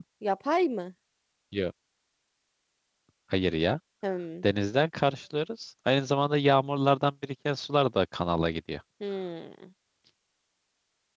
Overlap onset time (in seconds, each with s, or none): none